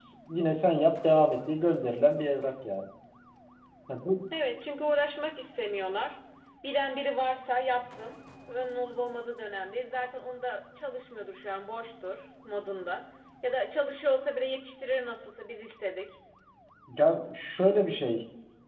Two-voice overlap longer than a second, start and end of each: none

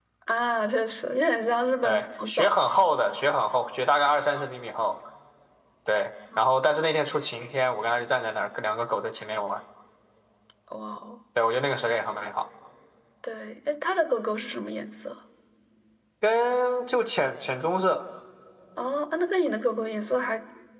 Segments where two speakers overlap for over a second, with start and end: 1.8-3.0

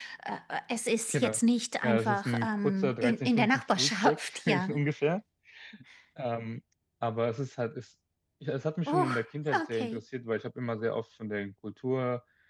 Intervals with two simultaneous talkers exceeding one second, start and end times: 1.8-4.7

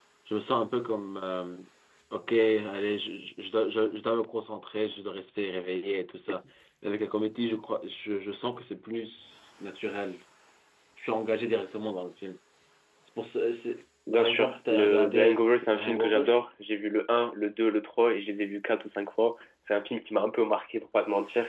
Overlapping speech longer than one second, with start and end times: 14.1-16.2

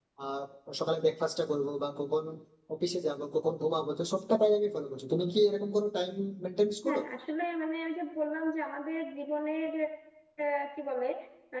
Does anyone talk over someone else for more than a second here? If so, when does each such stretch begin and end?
none

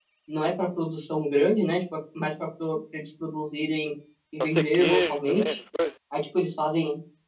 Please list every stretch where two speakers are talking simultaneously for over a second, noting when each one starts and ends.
4.4-5.6

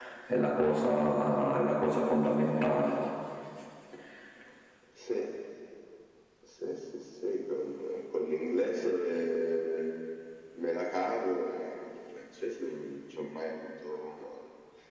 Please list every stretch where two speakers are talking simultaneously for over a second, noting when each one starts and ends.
none

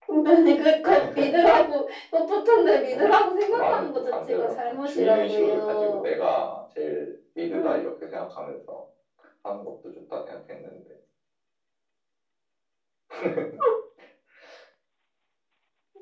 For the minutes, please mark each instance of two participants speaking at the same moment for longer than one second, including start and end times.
2.9-6.0

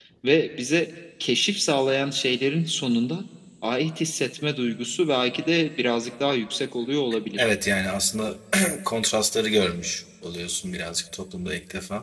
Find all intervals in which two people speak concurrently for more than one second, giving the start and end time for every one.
none

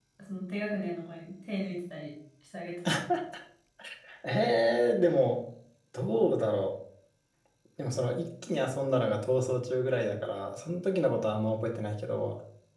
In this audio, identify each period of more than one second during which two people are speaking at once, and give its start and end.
none

